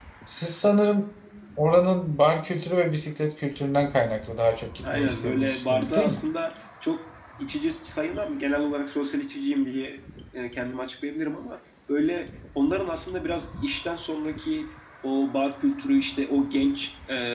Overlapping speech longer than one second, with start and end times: 4.9-6.2

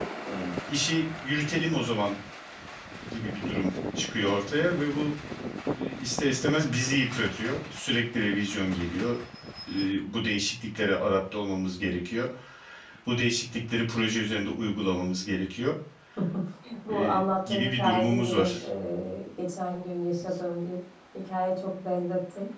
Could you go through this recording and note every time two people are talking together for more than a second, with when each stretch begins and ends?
16.9-18.7

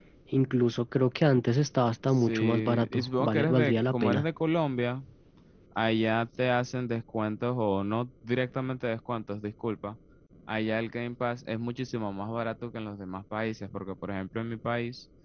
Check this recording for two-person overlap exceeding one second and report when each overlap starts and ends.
2.1-4.2

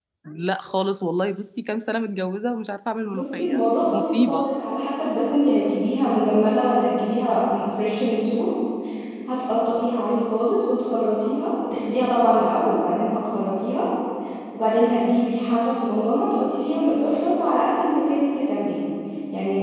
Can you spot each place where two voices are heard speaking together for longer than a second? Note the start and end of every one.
3.0-4.5

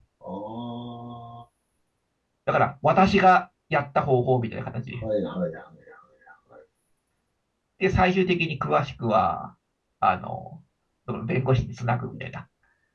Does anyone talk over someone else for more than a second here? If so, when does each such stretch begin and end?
none

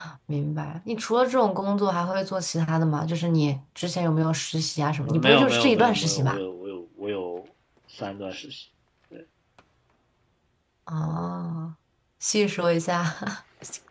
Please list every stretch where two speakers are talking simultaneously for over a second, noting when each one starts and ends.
5.1-6.4

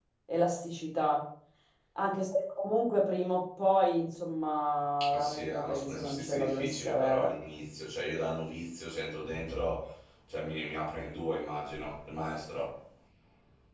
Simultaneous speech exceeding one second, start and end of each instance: 5.1-7.3

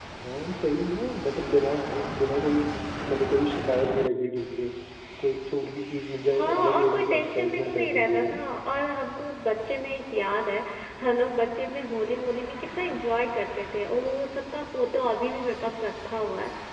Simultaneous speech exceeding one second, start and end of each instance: 6.3-8.4

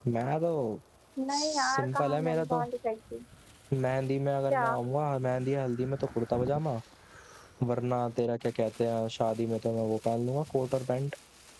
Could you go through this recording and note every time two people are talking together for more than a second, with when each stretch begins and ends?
1.3-2.6

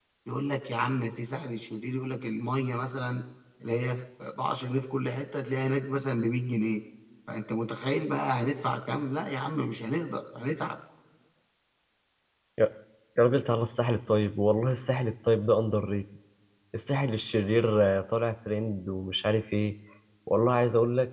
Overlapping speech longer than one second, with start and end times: none

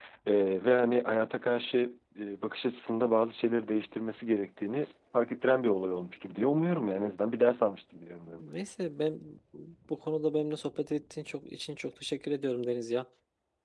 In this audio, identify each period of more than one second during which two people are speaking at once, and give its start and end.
none

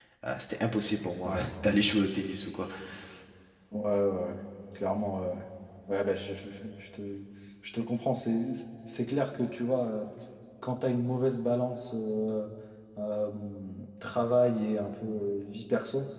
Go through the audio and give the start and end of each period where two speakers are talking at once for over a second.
none

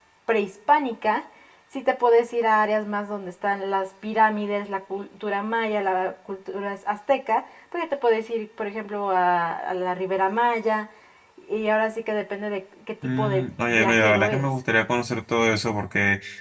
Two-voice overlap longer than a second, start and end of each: 13.2-14.5

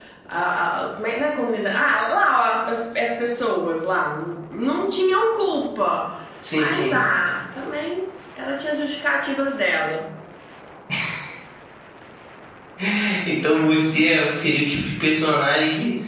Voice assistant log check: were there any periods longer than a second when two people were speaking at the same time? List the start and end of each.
none

